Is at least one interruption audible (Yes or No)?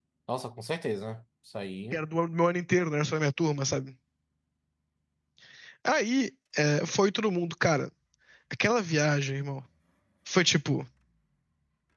No